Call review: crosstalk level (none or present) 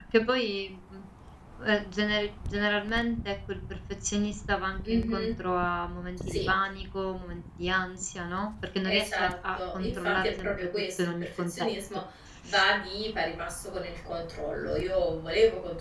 present